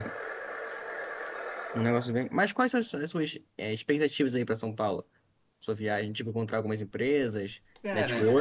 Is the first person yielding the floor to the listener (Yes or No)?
No